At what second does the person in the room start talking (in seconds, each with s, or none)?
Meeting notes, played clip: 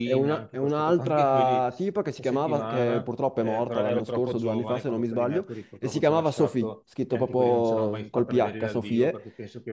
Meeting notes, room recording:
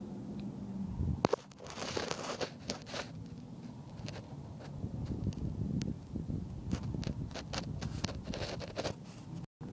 none